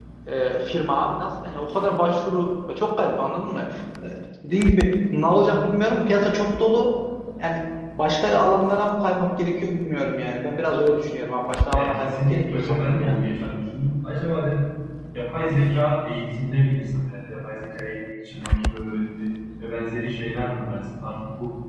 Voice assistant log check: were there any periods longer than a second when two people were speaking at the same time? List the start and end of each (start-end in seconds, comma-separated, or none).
11.7-13.2